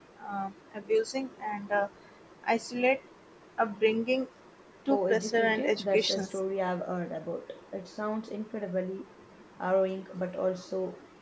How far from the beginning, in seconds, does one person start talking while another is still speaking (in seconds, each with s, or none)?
4.9 s